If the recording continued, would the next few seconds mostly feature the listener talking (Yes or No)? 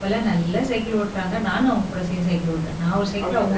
Yes